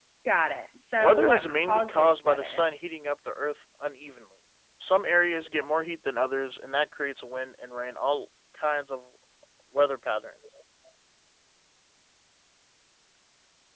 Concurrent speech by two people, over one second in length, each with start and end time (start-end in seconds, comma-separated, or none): 1.0-2.6